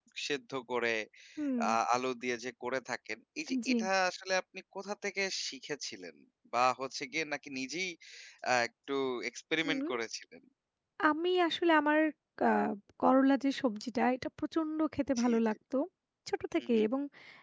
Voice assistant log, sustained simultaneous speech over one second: none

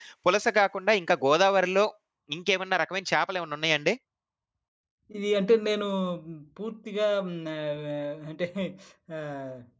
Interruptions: none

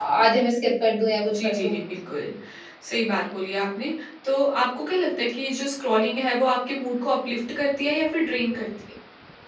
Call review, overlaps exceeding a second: none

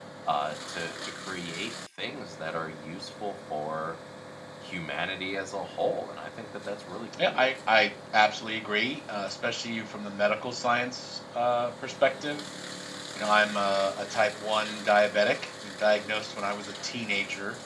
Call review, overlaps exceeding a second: none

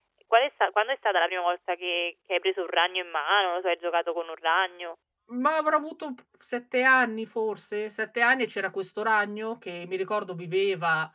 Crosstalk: none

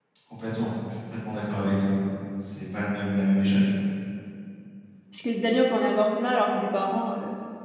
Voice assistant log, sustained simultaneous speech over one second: none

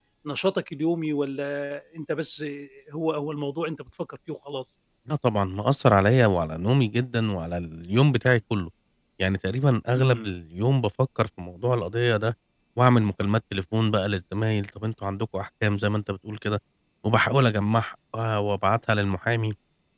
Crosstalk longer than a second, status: none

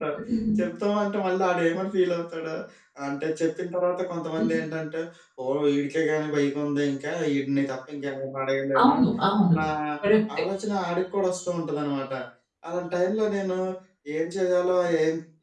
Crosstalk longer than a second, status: none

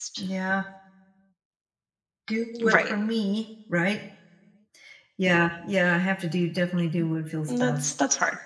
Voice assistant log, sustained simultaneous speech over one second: none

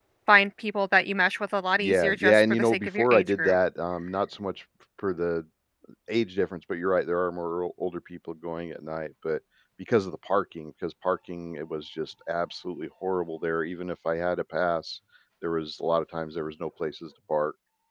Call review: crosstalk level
present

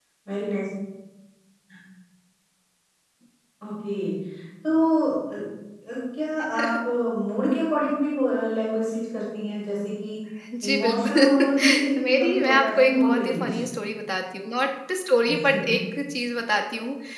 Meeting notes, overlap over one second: present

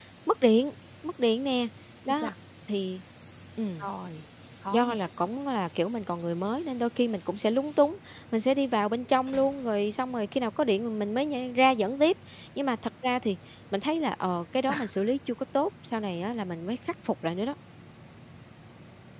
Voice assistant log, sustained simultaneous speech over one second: none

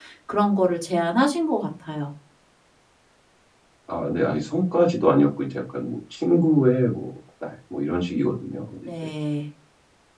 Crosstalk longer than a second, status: none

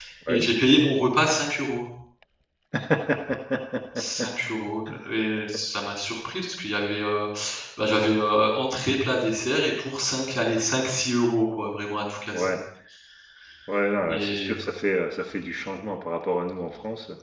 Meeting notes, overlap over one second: none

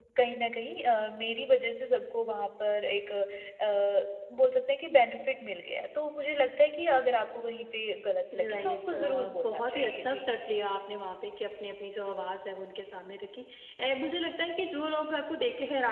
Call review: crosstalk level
present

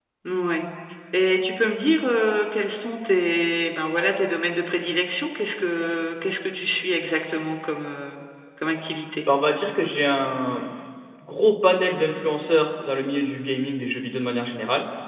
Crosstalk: none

